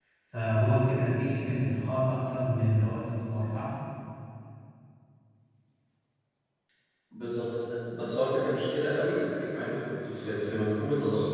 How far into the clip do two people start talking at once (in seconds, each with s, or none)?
none